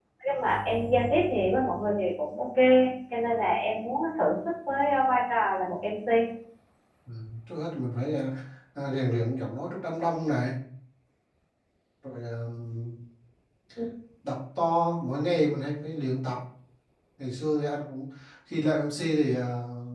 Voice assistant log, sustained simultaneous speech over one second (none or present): none